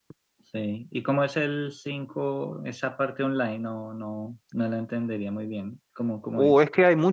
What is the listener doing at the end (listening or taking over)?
taking over